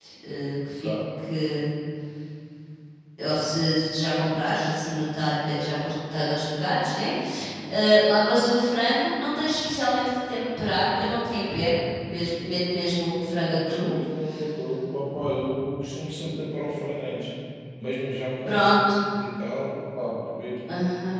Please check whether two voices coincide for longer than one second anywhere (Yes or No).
No